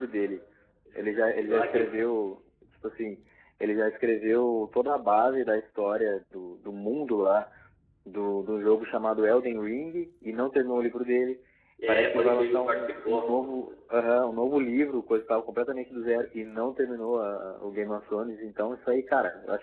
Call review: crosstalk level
present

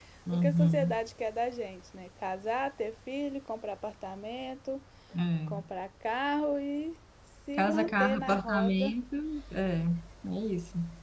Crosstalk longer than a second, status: present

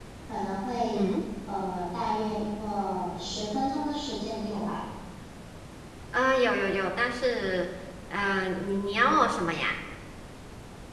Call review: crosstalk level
none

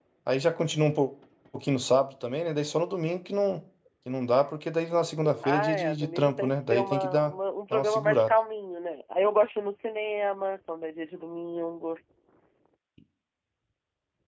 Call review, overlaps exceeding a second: present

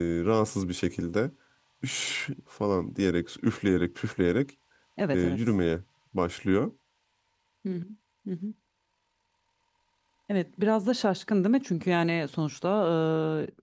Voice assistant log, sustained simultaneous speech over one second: none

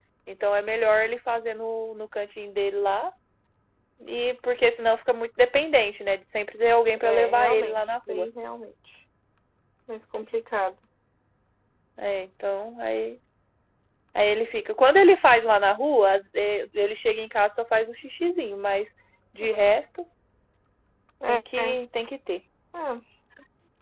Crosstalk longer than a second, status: present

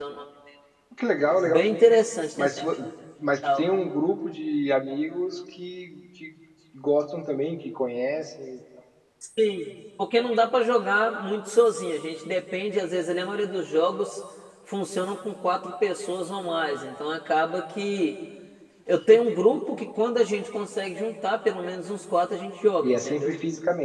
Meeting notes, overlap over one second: none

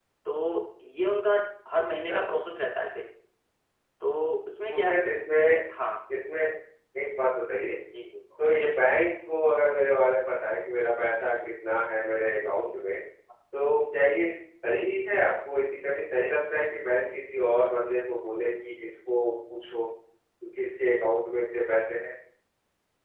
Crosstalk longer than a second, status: none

